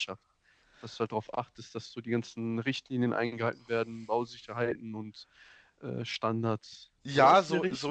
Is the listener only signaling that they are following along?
No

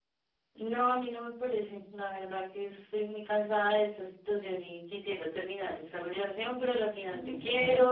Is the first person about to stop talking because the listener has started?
No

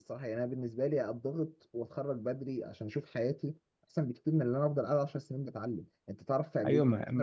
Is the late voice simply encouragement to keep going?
No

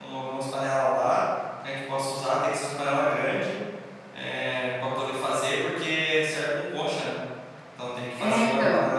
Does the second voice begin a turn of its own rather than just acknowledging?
No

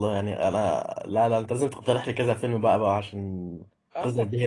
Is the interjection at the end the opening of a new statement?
Yes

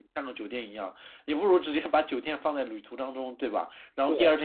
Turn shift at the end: No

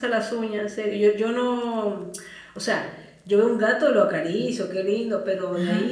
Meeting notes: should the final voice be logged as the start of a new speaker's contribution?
No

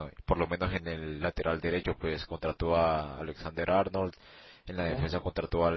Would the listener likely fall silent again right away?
Yes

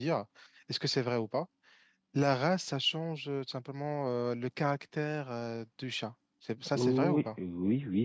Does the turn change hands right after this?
Yes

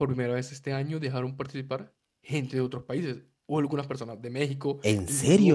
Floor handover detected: No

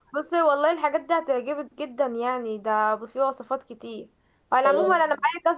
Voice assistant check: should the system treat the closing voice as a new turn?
No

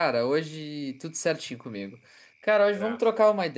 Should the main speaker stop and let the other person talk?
No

